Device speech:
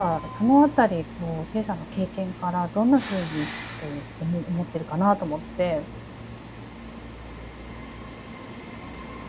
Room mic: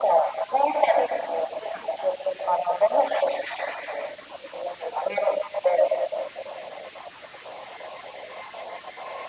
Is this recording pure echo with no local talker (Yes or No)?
Yes